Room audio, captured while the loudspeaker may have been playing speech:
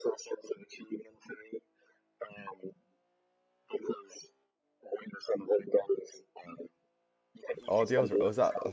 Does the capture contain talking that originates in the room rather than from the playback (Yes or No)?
Yes